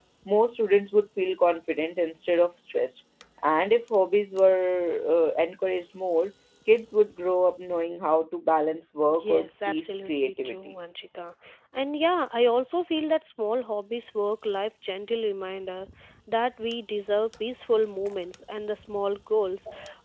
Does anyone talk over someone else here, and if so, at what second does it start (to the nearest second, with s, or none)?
9 s